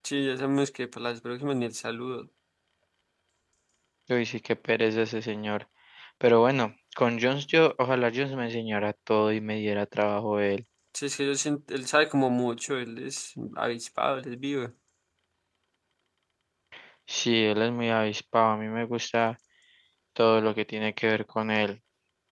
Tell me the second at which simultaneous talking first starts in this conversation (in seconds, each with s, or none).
none